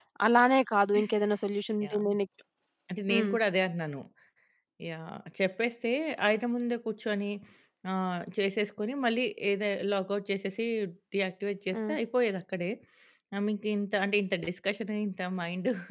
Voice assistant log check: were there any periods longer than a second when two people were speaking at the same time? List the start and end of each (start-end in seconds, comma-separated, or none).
none